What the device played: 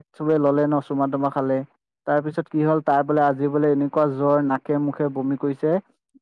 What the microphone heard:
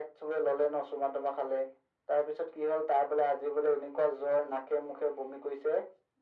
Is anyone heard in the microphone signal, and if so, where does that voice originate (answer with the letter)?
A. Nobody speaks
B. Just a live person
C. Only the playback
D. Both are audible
C